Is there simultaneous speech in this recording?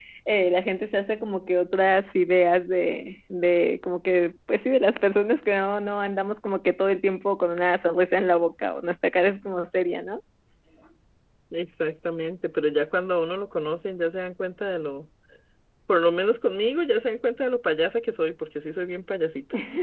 No

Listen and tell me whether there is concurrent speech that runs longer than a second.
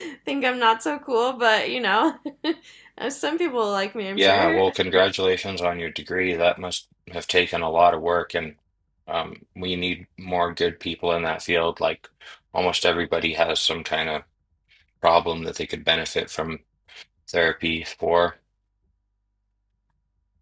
No

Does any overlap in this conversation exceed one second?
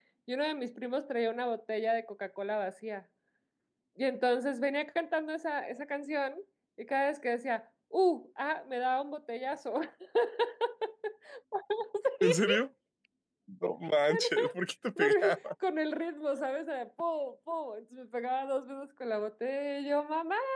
No

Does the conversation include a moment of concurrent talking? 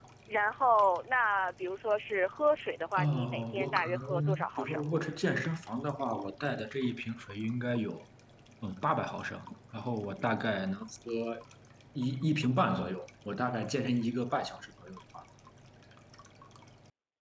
Yes, from 3.0 s

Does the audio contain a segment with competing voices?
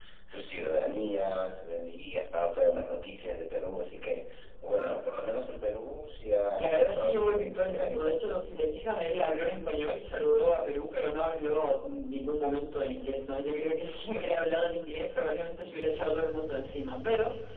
Yes, from 6.6 s

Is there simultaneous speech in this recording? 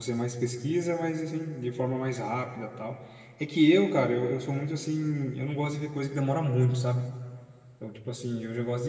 No

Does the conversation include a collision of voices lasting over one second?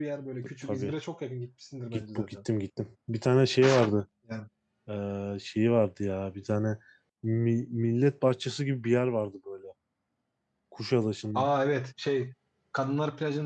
No

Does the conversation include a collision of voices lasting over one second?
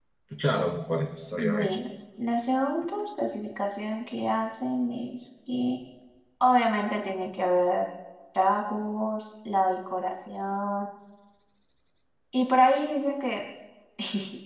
No

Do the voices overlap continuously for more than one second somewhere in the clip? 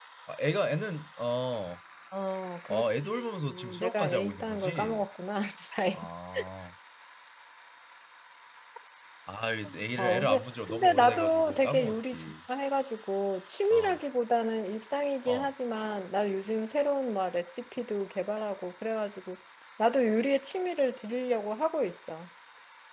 Yes, from 2.7 s

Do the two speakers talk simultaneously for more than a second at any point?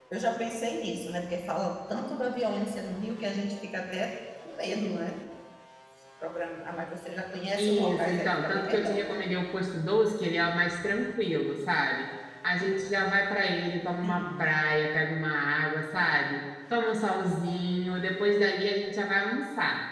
Yes, from 7.6 s

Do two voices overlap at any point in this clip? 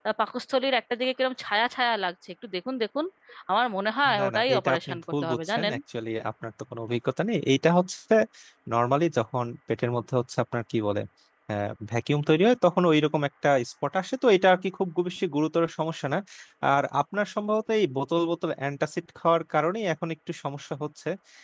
Yes, from 4.2 s

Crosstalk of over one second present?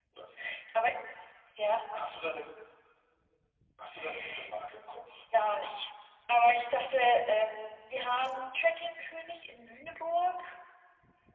No

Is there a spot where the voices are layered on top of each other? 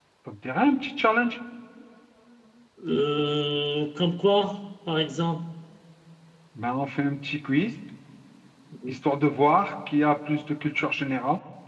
No

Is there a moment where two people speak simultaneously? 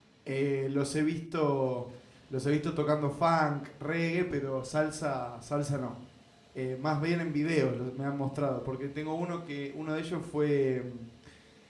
No

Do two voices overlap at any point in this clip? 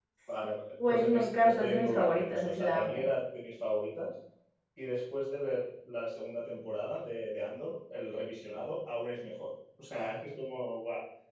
Yes, from 0.9 s

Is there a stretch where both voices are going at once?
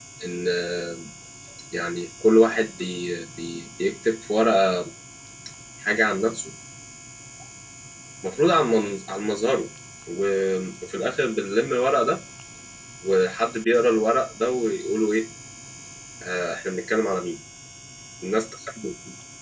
No

